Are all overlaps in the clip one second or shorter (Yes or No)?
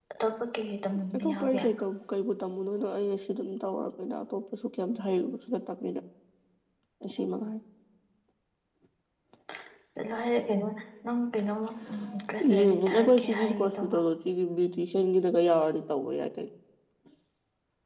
No